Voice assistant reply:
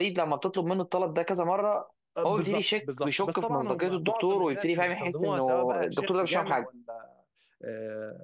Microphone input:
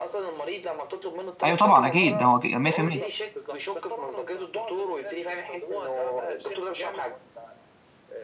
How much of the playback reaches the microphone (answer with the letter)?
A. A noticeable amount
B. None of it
A